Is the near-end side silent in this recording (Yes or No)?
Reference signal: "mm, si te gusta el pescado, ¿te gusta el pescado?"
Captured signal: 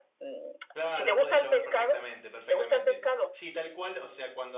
No